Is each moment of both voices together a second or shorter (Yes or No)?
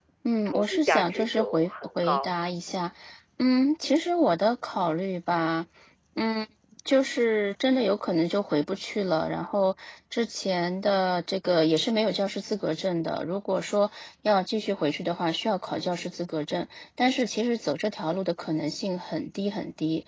No